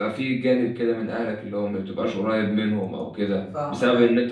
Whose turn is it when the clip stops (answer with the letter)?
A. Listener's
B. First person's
B